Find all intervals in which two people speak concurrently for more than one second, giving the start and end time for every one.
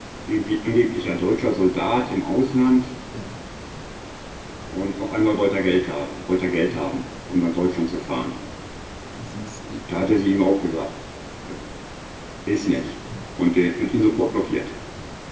none

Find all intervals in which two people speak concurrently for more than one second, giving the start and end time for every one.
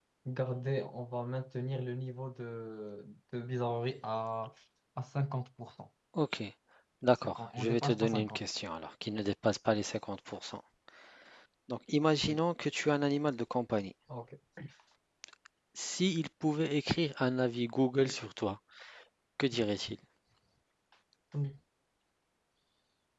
7.2-8.4

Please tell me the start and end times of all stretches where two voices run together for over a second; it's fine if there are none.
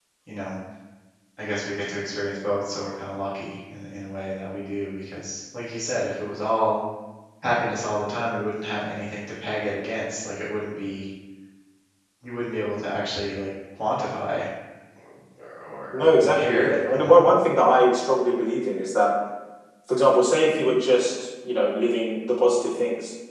15.9-17.2

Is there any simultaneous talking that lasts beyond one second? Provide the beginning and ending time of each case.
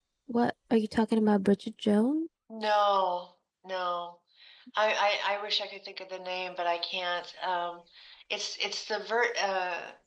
none

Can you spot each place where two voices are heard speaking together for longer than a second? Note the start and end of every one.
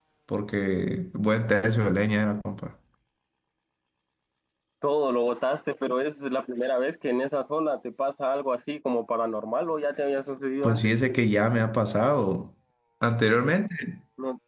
none

